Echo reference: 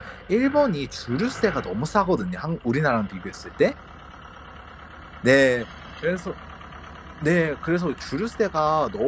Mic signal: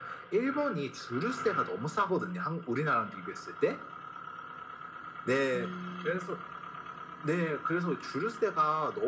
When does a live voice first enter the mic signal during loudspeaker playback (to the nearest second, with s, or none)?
6 s